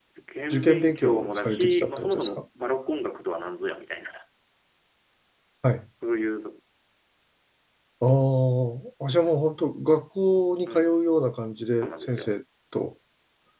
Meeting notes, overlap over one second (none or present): present